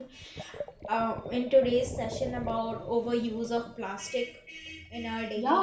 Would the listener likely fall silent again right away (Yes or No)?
No